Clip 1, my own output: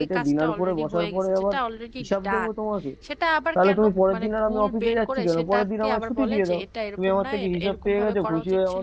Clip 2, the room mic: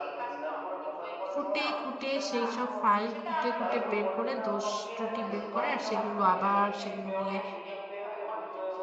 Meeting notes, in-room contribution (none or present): present